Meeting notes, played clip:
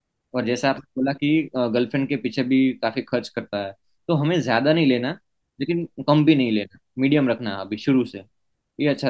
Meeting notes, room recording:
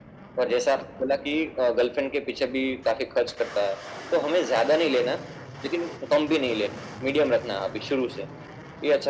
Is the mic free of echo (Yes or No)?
No